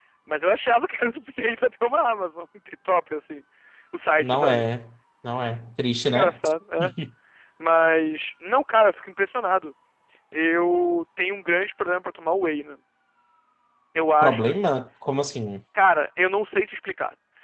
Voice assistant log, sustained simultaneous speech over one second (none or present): none